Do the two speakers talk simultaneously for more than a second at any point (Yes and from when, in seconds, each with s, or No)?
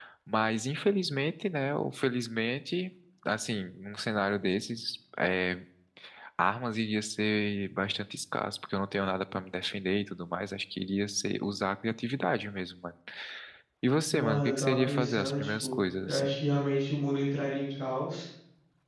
Yes, from 14.1 s